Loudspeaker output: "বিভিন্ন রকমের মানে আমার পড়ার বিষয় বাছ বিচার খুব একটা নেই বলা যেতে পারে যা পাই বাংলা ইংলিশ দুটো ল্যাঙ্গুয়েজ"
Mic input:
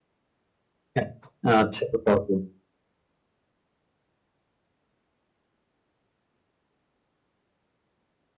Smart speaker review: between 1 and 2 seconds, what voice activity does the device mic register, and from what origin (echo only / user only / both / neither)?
user only